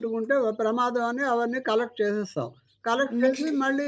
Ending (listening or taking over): listening